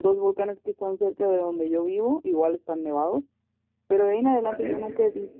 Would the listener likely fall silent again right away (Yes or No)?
Yes